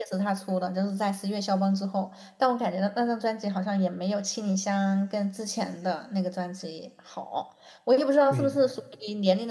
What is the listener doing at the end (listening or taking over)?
listening